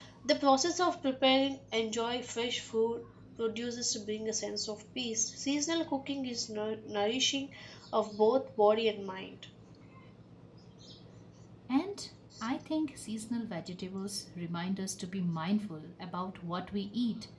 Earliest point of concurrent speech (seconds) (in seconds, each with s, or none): none